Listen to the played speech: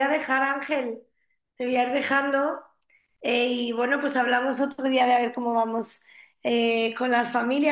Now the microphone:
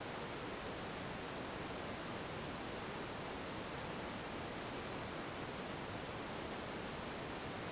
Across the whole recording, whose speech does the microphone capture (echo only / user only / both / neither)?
neither